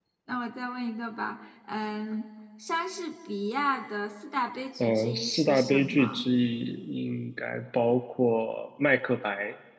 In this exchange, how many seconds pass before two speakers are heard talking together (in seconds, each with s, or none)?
4.8 s